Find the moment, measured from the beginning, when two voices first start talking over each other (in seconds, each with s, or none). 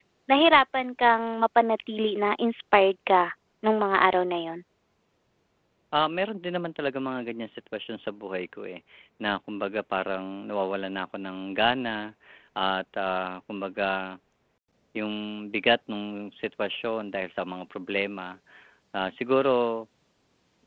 none